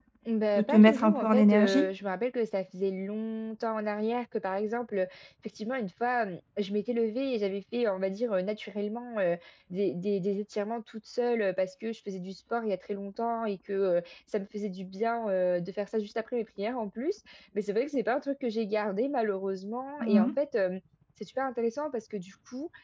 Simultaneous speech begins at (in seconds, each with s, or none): 0.6 s